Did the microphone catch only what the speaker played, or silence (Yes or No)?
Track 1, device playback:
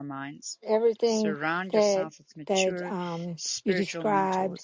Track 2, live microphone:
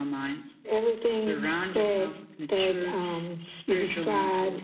Yes